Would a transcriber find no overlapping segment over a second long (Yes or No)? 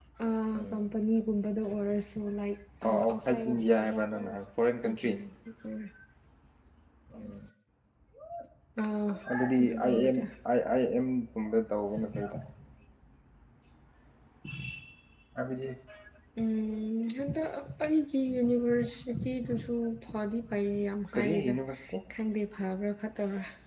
No